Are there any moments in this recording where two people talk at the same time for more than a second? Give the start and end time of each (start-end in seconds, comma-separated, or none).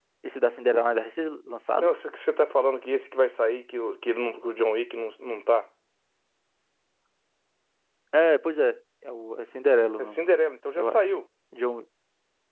none